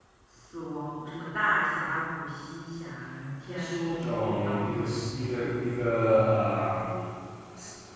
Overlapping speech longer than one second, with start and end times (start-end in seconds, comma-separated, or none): 3.4-5.5